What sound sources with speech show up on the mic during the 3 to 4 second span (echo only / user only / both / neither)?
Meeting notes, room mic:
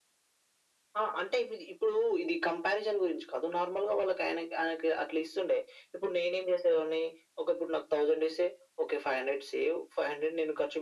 echo only